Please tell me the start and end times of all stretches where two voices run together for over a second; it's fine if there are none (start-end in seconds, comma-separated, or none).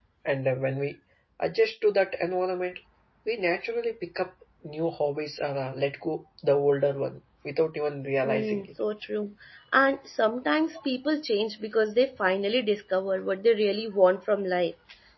none